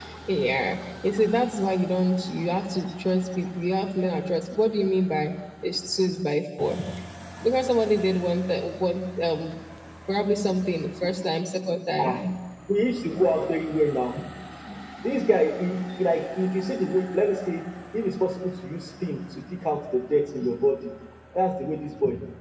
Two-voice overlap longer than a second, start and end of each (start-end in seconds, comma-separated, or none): none